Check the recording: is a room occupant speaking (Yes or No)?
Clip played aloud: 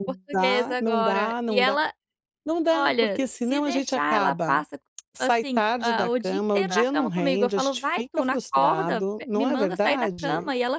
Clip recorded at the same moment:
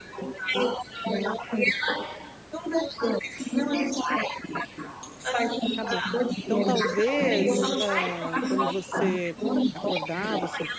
Yes